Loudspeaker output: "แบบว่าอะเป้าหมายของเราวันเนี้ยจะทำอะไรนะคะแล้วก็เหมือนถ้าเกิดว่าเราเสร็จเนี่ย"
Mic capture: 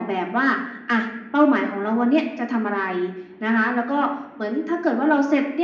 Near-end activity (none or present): none